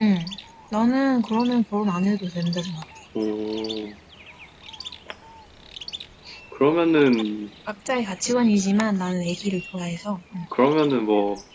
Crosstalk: none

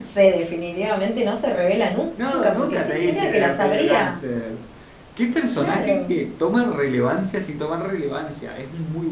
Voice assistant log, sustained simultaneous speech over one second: present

